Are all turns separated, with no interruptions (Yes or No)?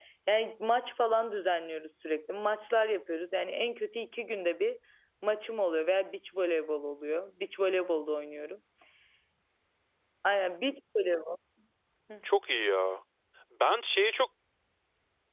Yes